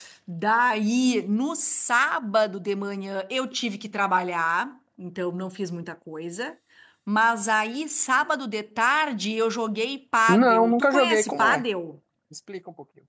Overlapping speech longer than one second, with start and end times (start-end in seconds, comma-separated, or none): 10.3-11.6